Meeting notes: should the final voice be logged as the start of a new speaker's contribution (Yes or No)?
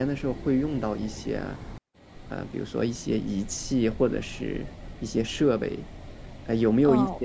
No